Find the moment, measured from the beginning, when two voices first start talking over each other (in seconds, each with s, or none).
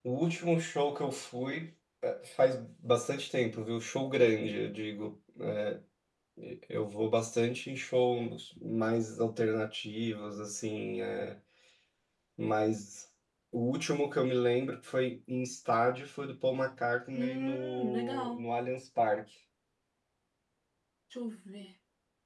17.1 s